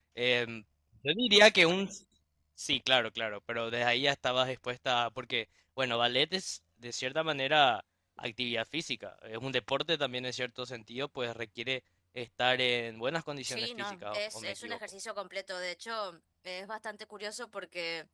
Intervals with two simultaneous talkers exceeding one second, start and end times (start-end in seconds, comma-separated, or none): 13.5-14.8